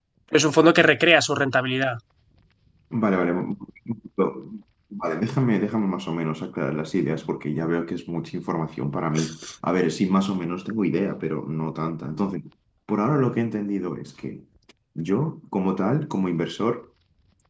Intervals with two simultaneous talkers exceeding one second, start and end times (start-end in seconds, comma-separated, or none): none